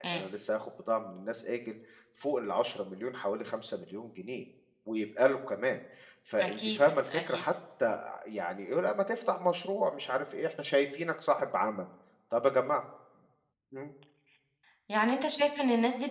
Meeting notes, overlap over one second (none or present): none